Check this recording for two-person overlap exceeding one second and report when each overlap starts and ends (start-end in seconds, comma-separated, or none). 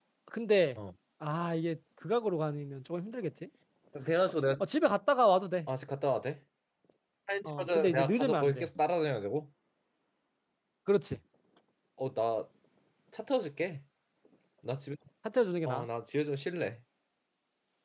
7.4-8.7